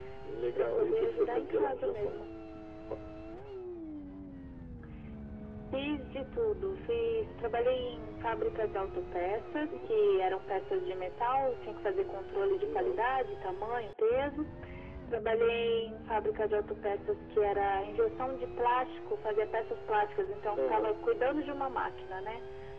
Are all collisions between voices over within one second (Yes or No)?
No